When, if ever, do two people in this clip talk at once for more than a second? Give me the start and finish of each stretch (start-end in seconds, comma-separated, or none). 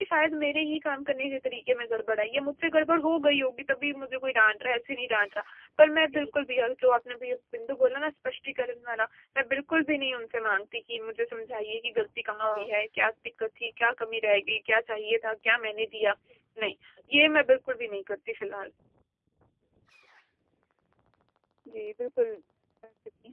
none